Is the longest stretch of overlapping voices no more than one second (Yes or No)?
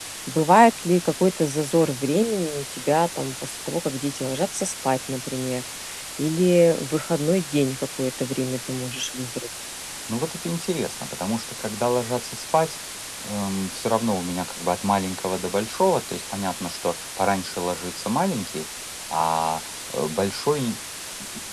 Yes